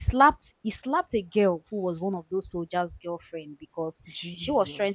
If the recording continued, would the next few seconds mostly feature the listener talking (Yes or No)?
No